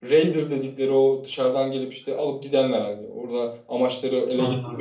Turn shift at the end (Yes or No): No